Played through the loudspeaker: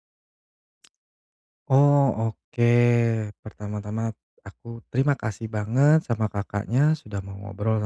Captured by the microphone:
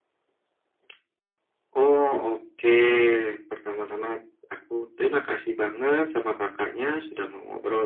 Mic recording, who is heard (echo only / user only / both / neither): echo only